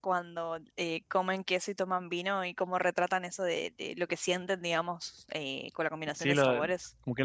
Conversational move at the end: taking over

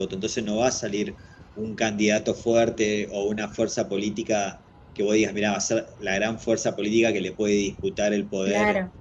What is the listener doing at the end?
taking over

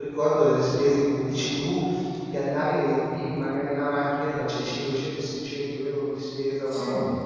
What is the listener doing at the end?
listening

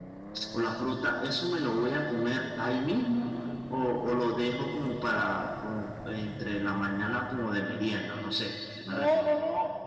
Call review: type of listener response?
taking over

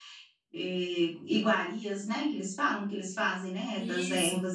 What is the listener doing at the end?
taking over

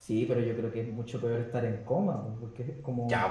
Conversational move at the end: taking over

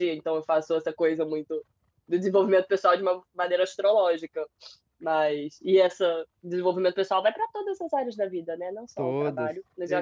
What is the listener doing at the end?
listening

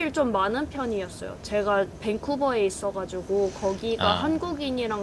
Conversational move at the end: listening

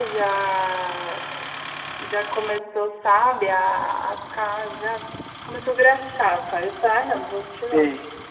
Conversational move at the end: listening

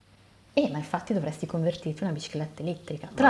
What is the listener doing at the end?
taking over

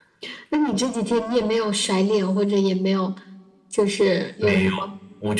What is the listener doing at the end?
taking over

